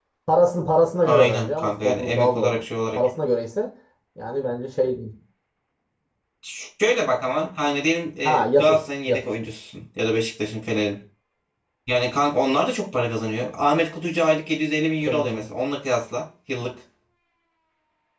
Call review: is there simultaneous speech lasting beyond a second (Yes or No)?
Yes